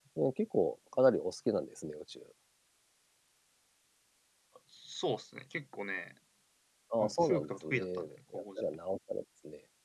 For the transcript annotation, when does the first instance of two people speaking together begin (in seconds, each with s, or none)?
7.0 s